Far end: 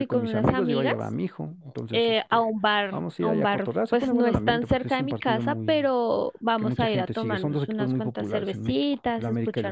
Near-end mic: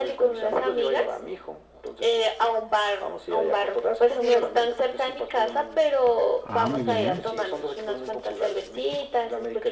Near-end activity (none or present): present